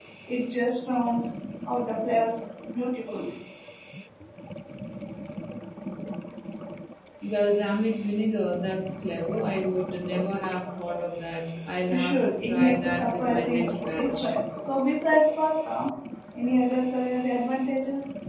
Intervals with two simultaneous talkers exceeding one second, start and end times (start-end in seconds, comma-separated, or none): 11.9-14.3